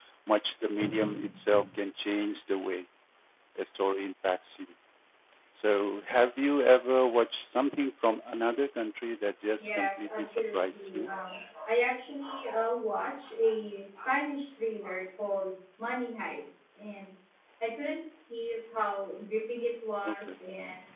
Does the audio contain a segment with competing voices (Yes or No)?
Yes